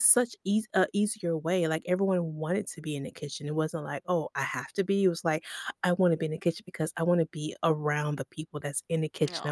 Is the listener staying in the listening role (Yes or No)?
Yes